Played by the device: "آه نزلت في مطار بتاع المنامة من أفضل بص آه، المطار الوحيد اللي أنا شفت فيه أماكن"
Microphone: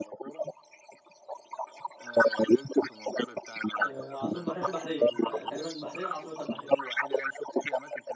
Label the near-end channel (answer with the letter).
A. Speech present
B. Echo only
A